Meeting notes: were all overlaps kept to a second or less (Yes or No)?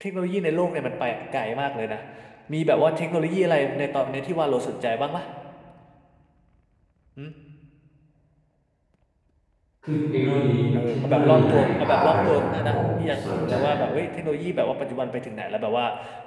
No